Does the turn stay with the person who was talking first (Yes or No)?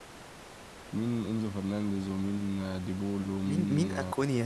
No